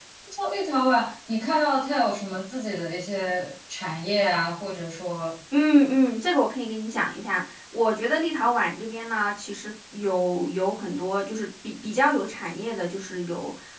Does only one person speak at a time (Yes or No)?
Yes